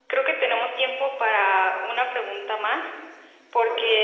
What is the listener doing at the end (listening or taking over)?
listening